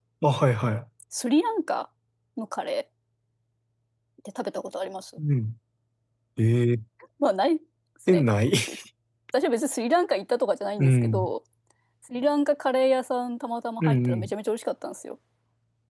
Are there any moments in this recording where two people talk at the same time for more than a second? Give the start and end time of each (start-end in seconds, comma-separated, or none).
none